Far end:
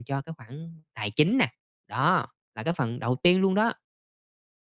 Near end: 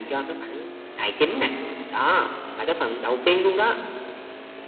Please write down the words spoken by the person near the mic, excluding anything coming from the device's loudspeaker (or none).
none